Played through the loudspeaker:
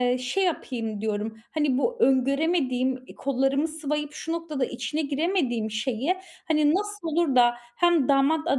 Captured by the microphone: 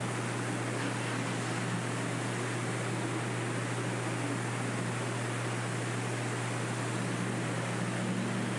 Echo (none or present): none